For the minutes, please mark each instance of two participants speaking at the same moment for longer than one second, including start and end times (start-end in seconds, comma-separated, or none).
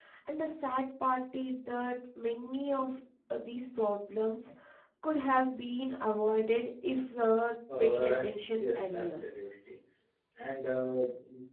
7.8-9.2